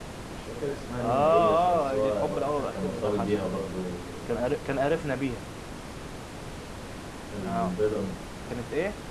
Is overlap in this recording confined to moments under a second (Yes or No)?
No